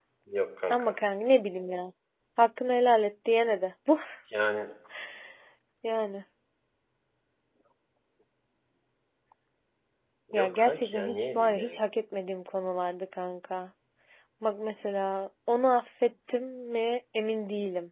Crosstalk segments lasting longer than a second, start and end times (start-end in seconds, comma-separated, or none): 10.4-11.8